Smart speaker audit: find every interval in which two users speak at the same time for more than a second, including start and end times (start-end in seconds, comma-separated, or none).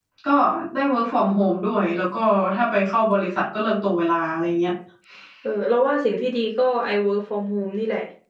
none